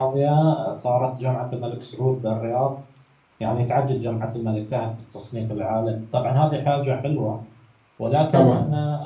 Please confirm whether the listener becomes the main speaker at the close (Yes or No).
No